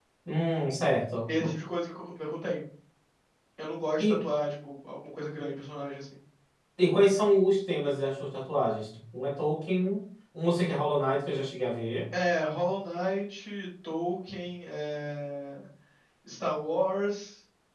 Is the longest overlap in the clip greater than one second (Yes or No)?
No